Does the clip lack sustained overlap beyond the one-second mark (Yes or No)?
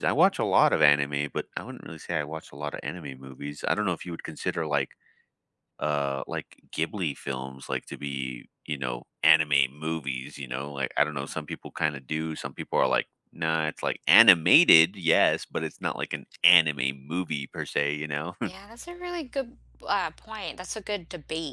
Yes